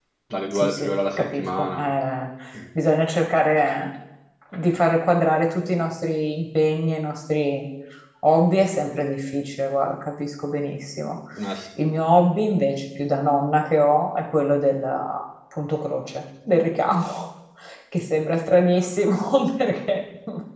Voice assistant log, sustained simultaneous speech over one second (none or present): present